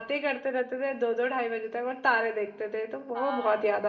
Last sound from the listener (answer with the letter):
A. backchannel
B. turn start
B